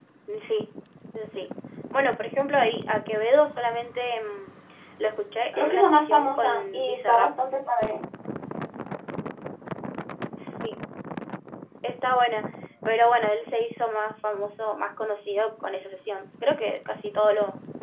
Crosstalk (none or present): present